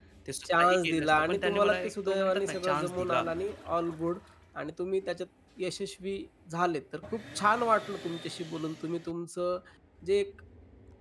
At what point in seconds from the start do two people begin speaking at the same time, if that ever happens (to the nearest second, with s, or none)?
1 s